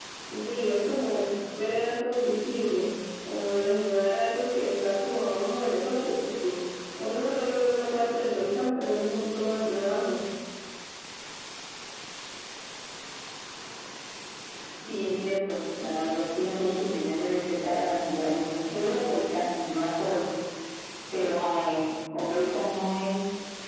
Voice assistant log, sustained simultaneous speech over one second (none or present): none